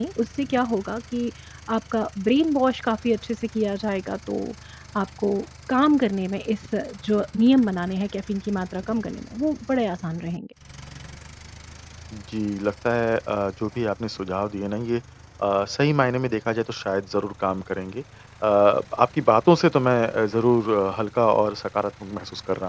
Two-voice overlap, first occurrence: none

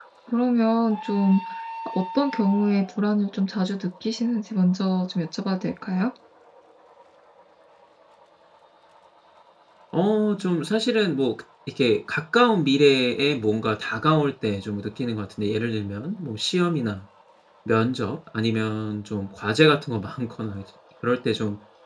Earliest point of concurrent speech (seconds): none

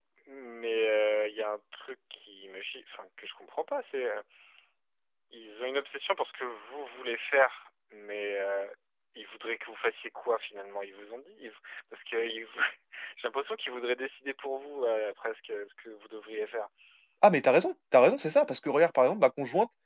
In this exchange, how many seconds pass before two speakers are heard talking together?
none

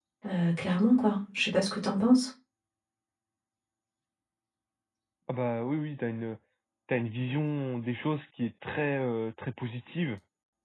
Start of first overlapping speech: none

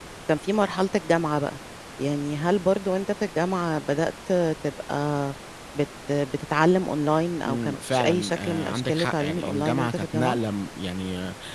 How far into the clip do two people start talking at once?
7.5 s

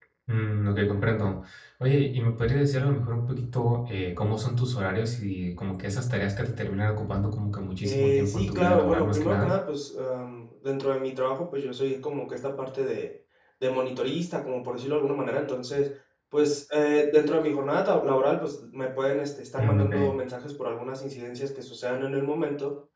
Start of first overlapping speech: 7.8 s

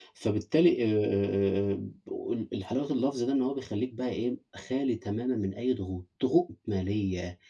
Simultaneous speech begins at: none

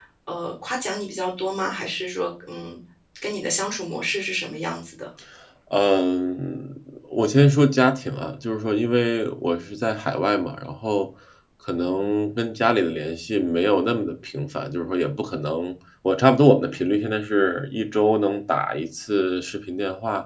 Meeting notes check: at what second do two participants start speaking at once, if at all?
none

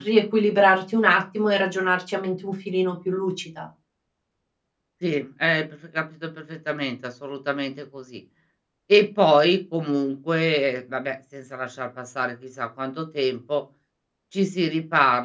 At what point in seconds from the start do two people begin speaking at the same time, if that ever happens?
none

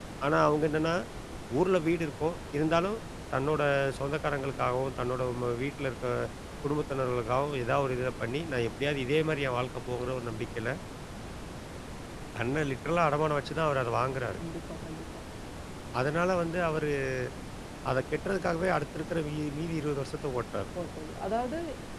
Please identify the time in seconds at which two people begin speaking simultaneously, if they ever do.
none

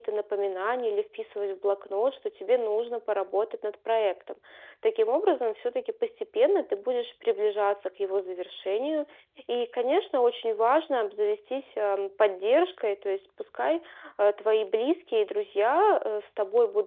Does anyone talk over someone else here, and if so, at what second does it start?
none

